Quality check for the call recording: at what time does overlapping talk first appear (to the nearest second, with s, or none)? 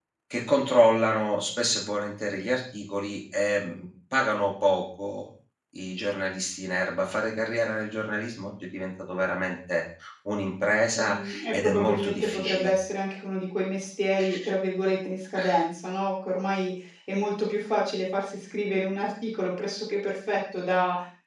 11 s